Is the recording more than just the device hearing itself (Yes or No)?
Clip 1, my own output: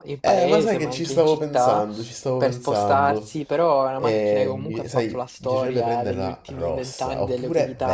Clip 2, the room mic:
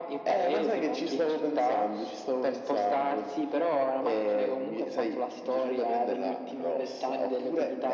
No